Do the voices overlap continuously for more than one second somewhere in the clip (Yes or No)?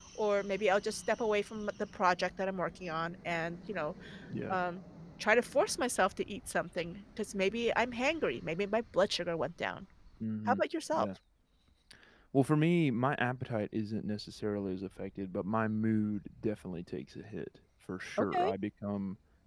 No